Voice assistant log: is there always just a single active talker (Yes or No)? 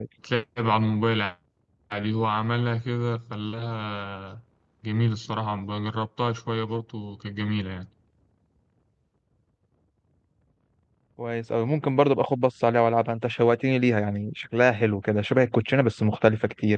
Yes